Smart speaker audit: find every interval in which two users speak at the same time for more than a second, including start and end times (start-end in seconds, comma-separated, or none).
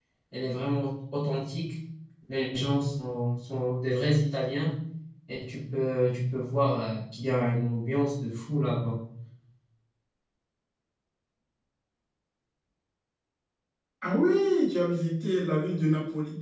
none